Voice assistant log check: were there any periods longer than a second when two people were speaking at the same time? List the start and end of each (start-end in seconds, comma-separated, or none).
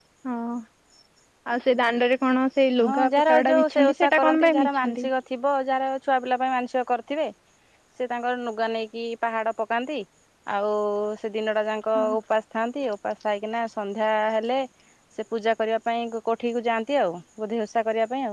2.8-5.1